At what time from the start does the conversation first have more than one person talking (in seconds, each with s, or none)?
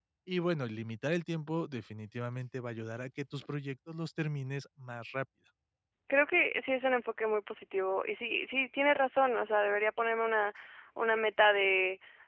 none